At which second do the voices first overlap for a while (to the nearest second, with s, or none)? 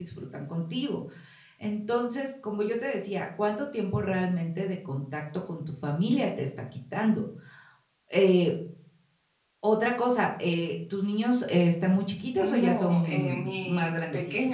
12 s